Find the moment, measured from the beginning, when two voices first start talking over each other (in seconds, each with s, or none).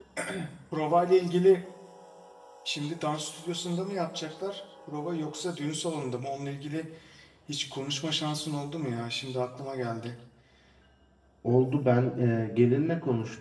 none